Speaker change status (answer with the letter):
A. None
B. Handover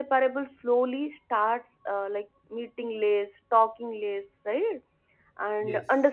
A